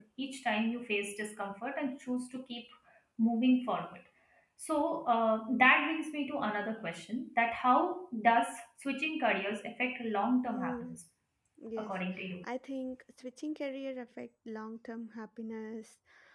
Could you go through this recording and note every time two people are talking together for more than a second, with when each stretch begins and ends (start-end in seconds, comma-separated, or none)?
none